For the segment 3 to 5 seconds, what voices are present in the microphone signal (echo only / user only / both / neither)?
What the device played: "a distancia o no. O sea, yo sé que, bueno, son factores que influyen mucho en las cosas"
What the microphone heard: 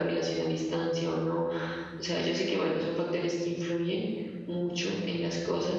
echo only